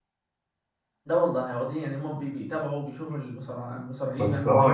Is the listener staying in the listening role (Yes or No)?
No